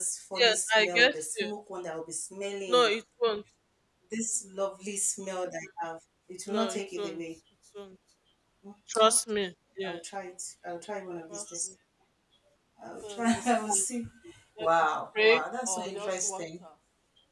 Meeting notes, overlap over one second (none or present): present